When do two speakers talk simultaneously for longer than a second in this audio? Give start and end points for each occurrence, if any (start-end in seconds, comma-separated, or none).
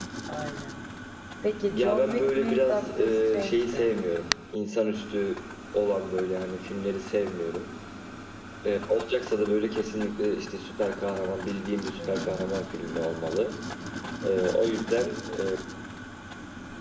1.7-3.9